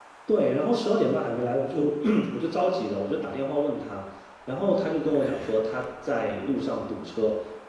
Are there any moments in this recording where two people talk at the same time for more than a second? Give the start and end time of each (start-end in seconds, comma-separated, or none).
none